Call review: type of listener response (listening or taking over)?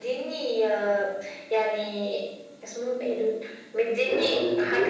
listening